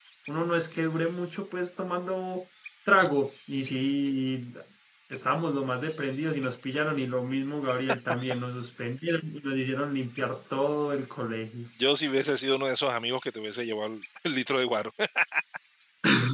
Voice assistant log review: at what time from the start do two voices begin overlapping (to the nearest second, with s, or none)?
none